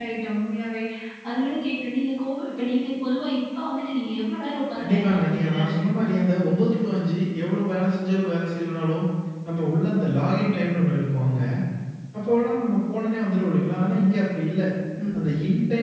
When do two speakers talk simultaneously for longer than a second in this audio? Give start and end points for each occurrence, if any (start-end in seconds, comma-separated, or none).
4.8-6.0